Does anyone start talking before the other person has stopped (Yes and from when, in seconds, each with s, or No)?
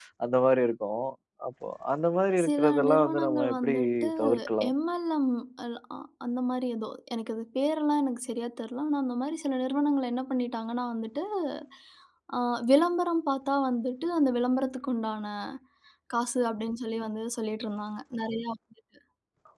Yes, from 2.4 s